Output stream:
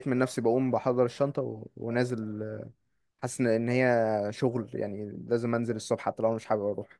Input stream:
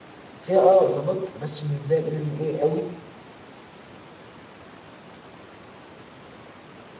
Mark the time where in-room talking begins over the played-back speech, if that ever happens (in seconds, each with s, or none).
0.3 s